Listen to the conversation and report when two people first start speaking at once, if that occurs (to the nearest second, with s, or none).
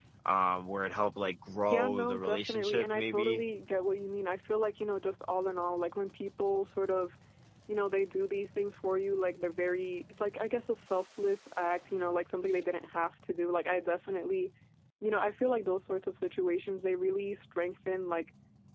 2 s